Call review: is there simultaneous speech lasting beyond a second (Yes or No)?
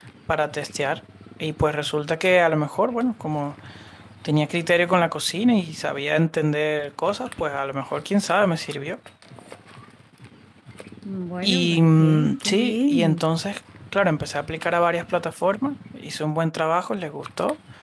Yes